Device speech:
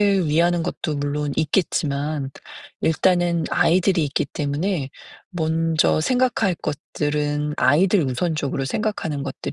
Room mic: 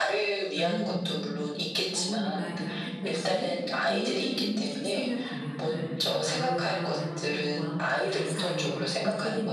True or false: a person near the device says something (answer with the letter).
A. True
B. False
A